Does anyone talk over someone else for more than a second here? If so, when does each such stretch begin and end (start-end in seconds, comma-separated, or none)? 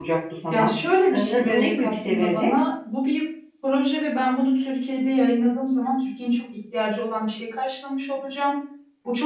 1.1-2.6